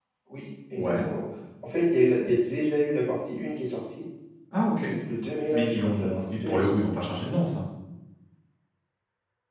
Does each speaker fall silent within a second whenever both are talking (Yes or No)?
No